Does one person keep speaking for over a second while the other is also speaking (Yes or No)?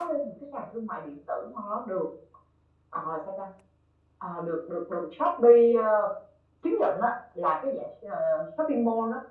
No